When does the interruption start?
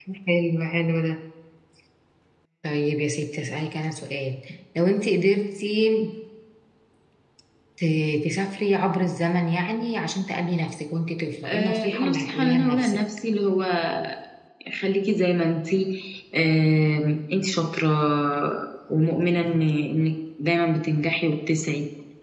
11.4 s

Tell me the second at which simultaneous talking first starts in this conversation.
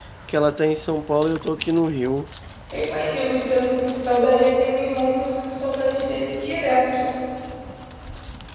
none

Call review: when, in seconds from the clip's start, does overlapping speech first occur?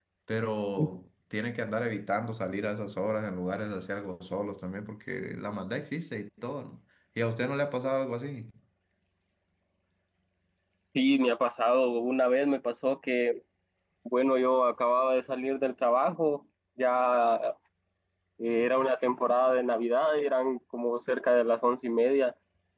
none

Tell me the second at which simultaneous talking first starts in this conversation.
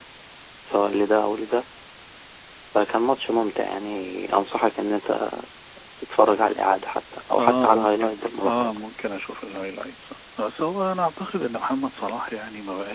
7.4 s

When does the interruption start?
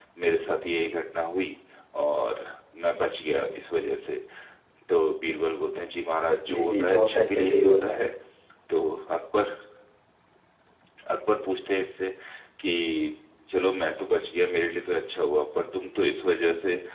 6.5 s

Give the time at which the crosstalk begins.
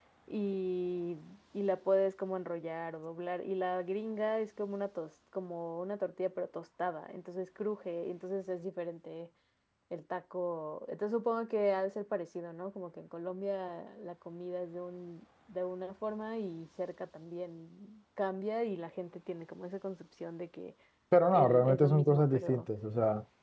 21.3 s

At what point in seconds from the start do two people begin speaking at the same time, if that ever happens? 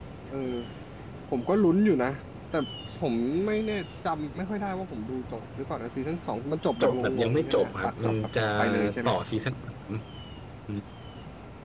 6.8 s

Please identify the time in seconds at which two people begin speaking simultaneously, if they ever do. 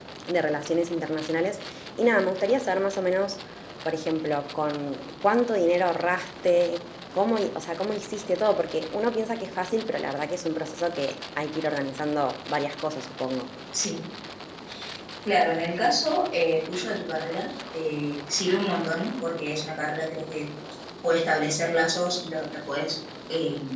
none

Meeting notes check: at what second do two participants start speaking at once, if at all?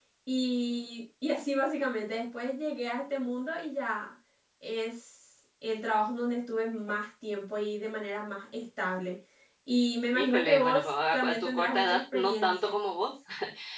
10.1 s

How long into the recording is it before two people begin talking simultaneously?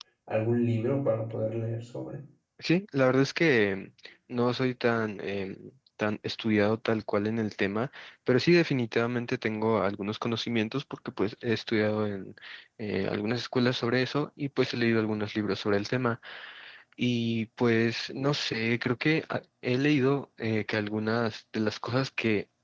none

